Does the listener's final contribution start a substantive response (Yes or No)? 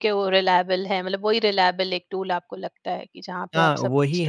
Yes